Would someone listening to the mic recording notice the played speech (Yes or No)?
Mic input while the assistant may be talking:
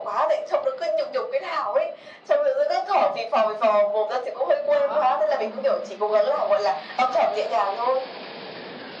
Yes